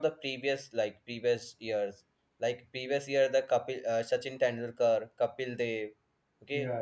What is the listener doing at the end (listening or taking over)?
listening